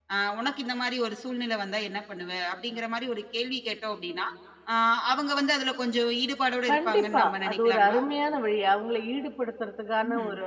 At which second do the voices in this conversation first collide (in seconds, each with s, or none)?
6.7 s